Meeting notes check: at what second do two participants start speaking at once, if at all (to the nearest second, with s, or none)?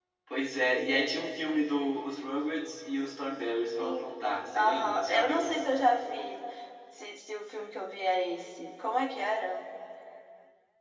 4 s